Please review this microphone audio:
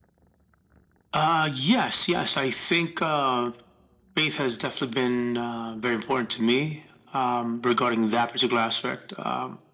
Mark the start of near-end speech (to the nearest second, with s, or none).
none